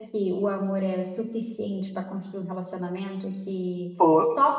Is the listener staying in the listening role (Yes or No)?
Yes